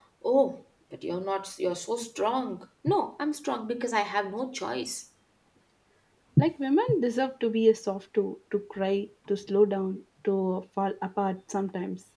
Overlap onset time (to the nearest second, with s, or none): none